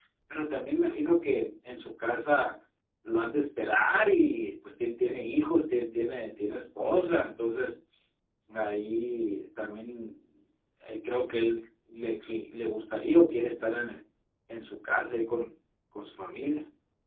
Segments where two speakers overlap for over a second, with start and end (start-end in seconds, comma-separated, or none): none